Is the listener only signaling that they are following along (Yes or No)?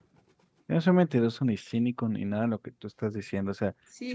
No